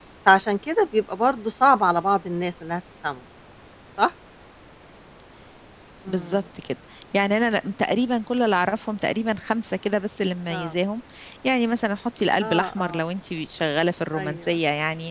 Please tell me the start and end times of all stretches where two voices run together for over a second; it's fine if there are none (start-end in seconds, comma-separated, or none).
none